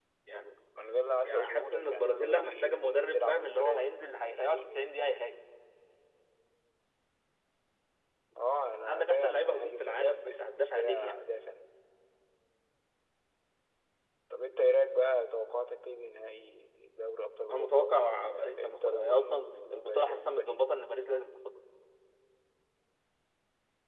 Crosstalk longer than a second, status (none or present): present